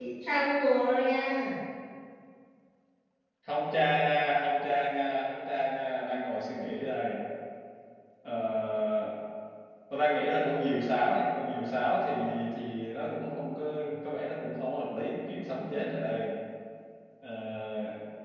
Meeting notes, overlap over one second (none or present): none